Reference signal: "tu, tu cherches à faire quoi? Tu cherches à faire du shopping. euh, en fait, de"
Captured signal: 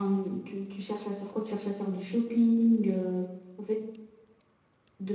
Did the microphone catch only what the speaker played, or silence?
Yes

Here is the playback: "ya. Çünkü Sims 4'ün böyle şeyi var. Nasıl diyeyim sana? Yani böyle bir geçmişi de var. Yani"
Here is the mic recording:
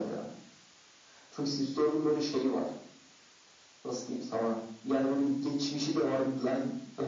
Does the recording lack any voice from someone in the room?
Yes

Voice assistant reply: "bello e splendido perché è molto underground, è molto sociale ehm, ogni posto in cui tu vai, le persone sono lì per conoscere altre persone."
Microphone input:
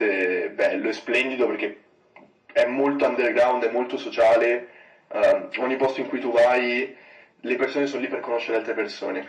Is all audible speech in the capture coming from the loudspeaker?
Yes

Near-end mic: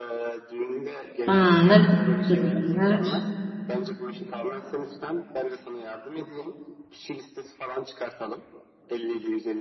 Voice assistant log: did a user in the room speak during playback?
Yes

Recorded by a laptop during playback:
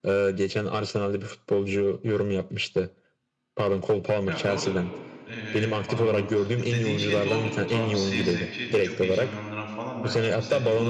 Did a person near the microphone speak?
Yes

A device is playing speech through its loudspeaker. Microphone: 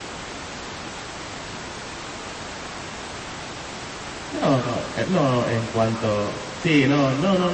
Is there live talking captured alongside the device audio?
Yes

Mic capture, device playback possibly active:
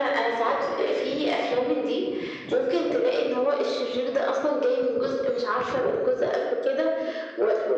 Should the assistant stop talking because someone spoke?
No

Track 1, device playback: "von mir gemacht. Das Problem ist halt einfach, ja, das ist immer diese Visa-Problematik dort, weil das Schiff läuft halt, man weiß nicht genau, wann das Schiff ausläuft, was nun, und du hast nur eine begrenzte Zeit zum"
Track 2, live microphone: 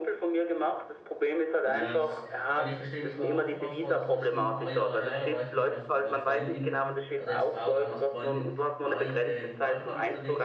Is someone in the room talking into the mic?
Yes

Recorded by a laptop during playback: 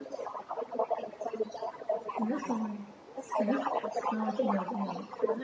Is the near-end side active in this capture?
Yes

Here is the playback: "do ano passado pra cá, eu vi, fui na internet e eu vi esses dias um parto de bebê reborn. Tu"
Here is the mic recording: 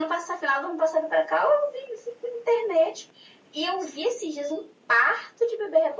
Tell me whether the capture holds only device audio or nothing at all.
Yes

